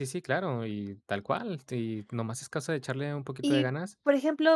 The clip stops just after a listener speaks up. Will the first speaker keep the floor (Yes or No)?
No